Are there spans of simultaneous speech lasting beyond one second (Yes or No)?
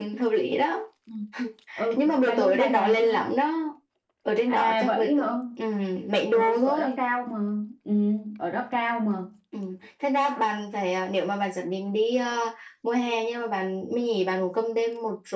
Yes